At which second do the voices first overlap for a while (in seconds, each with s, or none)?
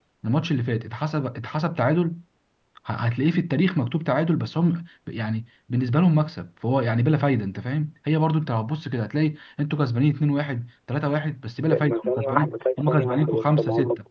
11.7 s